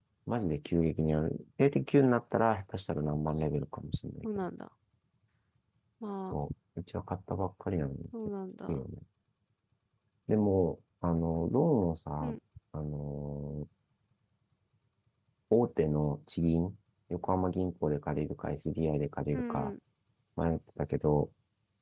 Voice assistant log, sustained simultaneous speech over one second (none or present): none